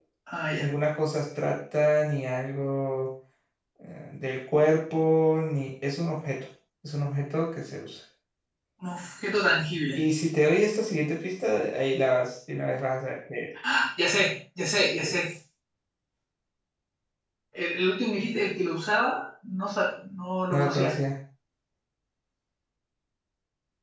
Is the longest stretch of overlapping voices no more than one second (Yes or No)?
Yes